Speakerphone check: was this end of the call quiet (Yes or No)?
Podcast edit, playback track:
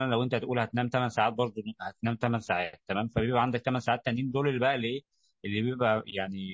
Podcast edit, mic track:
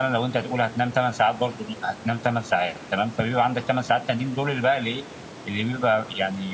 Yes